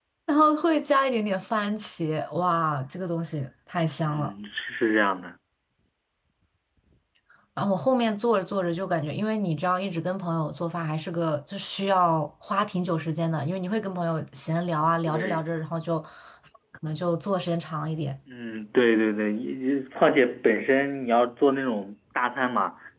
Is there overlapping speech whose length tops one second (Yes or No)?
No